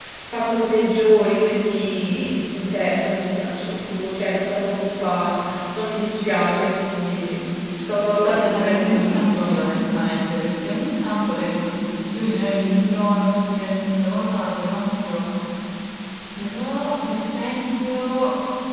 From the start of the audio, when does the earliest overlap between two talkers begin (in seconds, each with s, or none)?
8.2 s